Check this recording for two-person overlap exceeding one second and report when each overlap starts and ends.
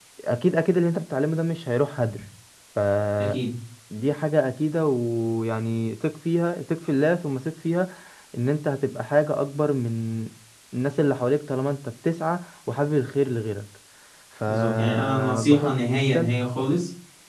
14.5-16.3

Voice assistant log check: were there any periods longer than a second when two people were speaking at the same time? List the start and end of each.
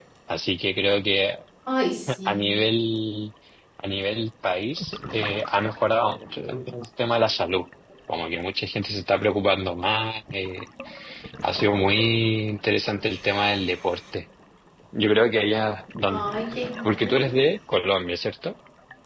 none

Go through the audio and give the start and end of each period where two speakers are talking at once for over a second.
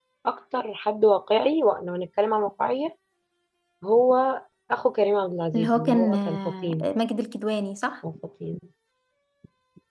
5.5-6.9

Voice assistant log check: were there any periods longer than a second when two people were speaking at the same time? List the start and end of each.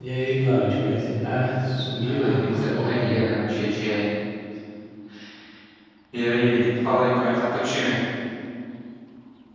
2.0-3.2

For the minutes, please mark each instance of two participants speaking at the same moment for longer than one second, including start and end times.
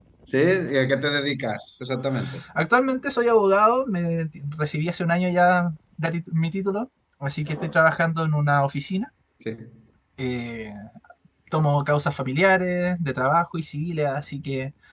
none

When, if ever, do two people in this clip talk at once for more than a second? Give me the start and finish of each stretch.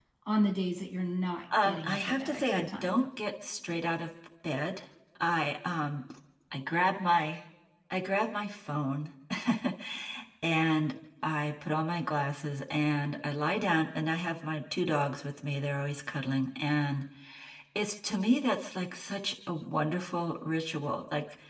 1.6-3.0

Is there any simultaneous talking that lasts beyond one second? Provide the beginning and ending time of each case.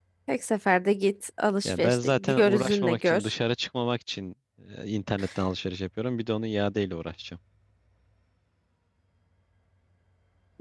1.6-3.3

